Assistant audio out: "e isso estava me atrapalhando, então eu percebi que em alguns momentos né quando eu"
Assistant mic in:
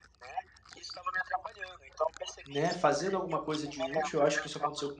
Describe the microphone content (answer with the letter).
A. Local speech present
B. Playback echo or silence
A